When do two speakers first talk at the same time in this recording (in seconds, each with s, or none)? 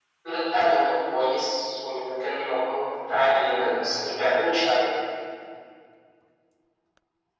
3.1 s